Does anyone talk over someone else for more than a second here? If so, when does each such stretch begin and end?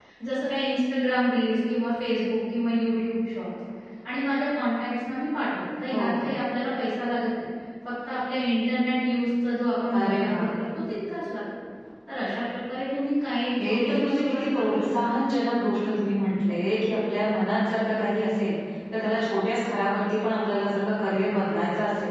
13.6-14.8

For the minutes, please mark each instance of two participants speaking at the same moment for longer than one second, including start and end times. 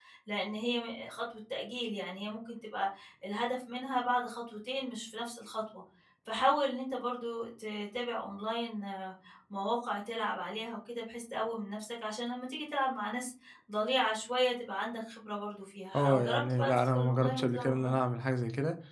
16.0-18.0

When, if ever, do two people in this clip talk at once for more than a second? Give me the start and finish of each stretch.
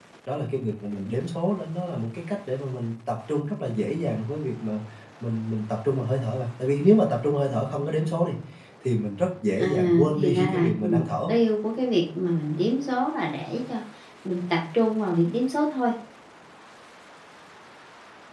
9.6-11.3

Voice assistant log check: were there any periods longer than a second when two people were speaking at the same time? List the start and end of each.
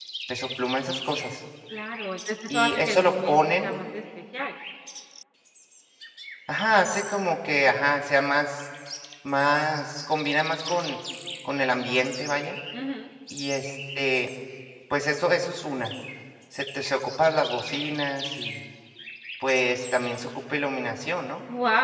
2.5-3.7

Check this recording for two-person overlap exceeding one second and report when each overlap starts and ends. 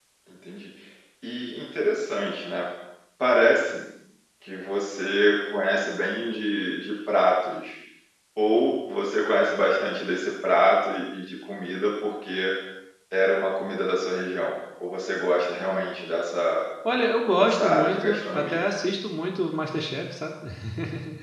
17.4-18.7

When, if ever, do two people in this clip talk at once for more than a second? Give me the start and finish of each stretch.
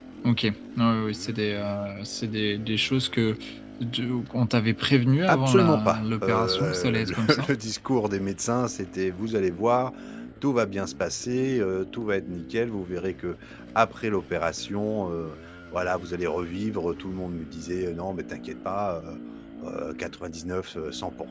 5.3-7.5

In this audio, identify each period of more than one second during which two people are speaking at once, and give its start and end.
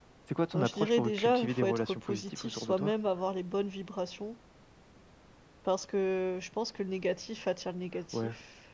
0.5-2.9

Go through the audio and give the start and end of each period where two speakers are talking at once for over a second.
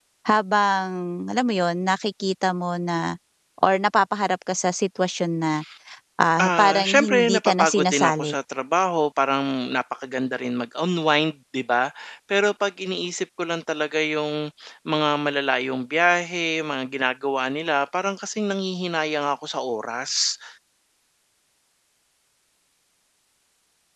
6.4-8.3

